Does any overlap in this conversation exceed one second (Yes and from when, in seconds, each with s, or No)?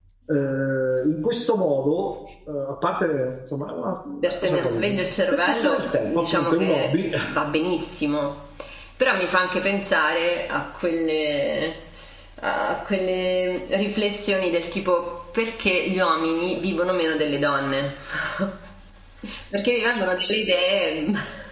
Yes, from 4.2 s